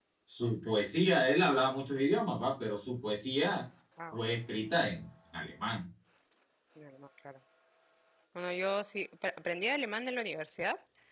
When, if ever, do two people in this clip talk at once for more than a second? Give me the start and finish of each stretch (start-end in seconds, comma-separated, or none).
none